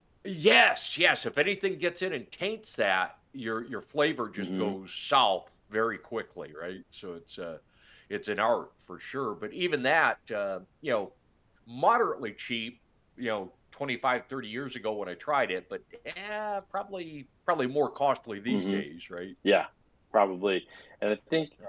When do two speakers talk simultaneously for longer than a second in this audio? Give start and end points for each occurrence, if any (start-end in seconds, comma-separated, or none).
none